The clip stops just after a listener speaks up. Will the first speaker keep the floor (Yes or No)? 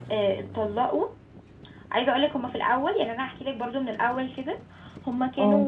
Yes